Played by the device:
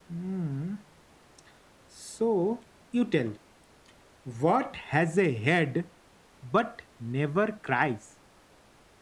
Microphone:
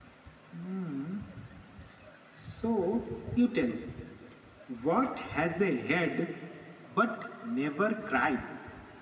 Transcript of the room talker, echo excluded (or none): none